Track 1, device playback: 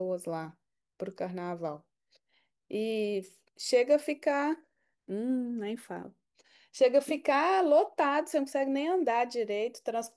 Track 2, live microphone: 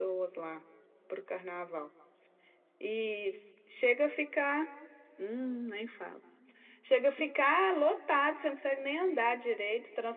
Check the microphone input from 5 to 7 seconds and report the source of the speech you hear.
echo only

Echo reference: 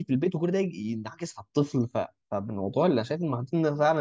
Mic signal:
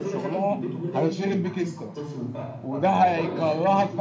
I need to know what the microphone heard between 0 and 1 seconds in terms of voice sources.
both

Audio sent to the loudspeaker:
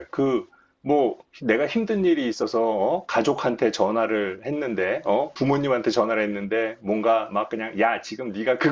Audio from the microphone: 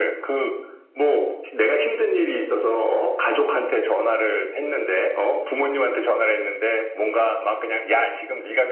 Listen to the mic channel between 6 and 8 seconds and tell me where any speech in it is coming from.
echo only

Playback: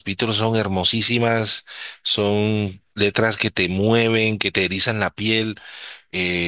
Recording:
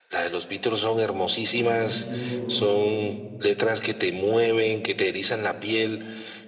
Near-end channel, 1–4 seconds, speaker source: both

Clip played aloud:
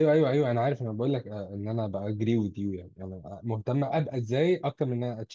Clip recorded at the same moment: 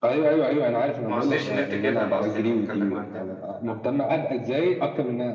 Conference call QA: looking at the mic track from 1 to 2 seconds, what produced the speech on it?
both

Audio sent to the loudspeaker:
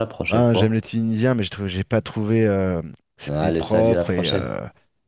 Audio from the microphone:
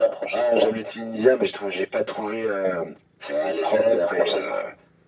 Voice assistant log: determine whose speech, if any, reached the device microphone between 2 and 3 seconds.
echo only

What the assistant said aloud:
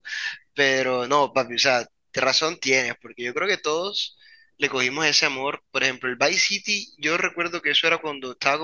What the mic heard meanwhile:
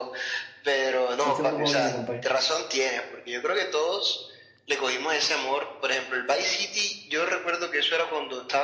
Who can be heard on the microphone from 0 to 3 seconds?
both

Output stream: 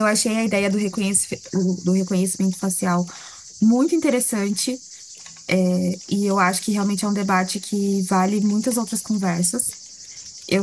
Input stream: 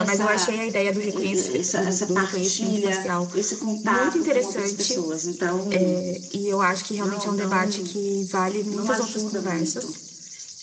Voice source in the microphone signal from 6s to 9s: both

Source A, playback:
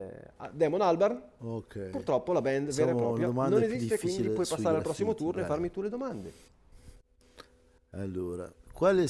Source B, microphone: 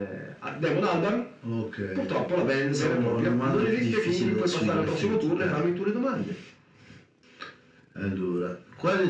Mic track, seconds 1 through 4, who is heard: echo only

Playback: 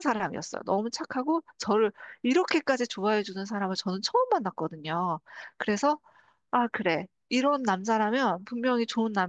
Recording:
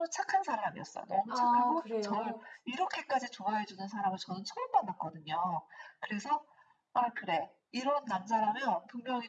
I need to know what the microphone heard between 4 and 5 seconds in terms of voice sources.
echo only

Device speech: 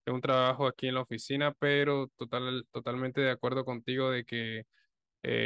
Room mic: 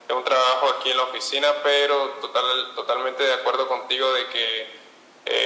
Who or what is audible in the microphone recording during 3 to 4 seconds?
echo only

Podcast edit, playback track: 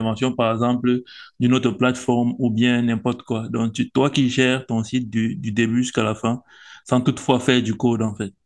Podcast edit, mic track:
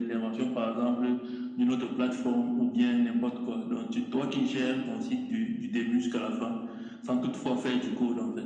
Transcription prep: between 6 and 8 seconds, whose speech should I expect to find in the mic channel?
echo only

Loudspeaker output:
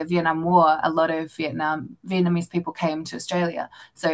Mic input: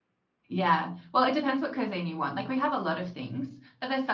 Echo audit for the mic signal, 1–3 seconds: user only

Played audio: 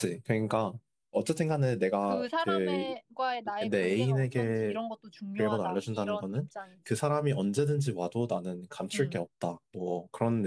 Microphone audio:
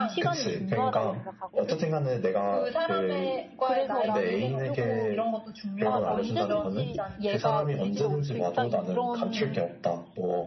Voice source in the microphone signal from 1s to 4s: both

